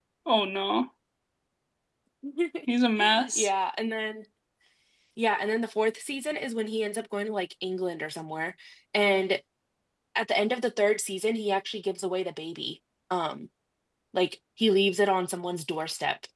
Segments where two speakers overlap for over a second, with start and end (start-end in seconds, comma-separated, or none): none